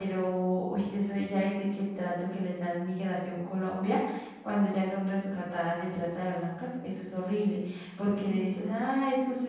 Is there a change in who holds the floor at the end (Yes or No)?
No